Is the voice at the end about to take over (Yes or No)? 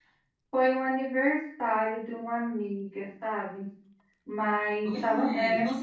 Yes